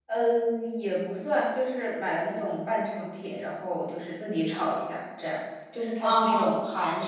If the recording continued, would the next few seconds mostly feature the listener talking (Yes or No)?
No